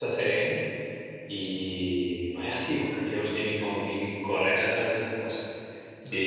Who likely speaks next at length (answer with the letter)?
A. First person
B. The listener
A